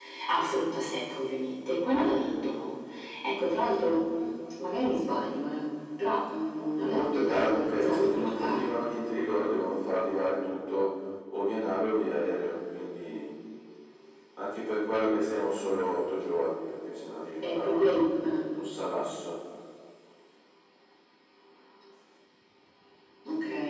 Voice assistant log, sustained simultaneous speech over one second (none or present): present